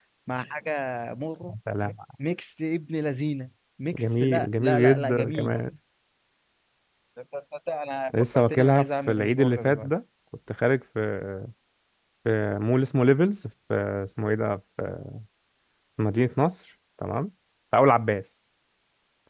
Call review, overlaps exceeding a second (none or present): present